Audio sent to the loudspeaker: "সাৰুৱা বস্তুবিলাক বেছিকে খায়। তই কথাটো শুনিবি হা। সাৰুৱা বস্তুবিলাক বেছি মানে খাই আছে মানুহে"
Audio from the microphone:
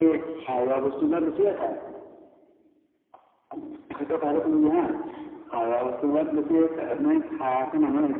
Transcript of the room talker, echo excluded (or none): none